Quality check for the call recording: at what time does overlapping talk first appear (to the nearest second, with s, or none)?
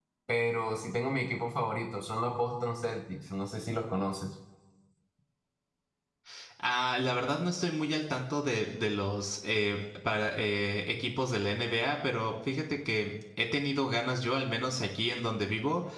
none